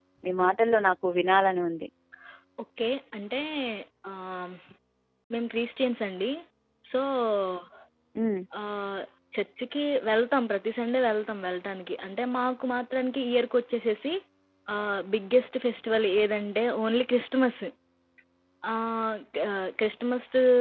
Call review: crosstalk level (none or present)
none